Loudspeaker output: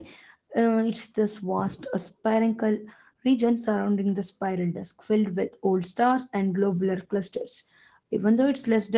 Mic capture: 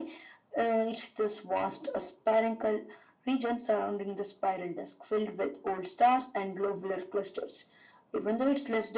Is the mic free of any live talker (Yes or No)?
Yes